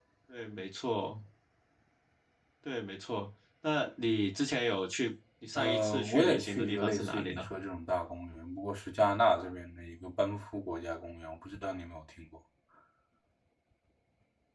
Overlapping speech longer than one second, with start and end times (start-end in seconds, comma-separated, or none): 5.5-7.4